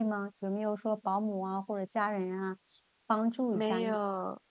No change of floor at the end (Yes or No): No